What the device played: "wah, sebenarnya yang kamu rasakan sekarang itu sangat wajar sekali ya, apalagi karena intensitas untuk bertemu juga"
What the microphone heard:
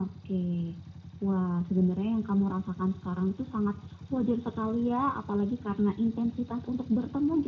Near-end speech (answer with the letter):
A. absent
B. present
A